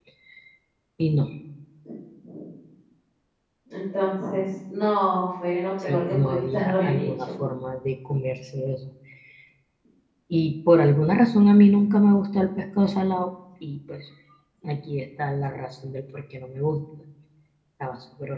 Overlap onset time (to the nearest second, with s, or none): 6 s